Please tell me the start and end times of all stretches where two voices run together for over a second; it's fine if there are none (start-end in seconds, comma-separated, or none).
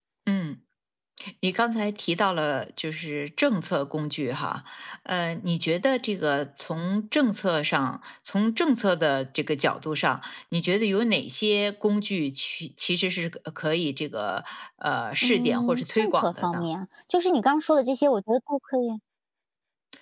15.2-16.6